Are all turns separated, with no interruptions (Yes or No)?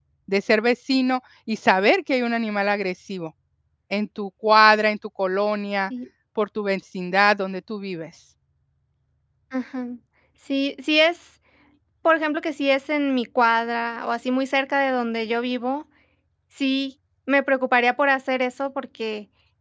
Yes